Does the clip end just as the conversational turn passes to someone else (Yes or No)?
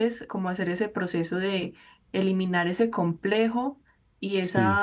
No